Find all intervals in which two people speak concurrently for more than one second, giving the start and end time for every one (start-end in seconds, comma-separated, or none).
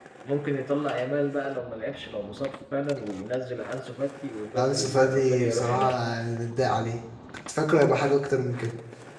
4.6-6.0